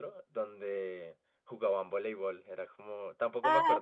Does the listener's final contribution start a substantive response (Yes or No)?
Yes